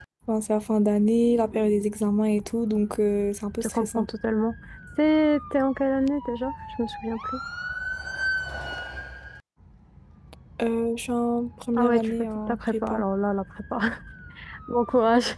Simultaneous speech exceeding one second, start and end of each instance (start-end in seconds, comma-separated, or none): 11.8-13.0